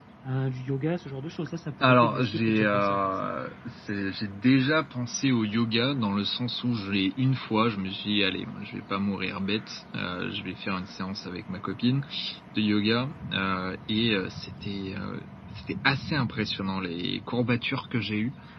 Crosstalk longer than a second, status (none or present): present